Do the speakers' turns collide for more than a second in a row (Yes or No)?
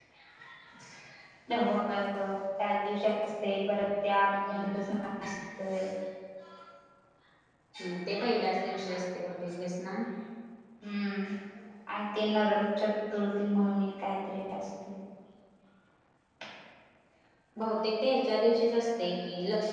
No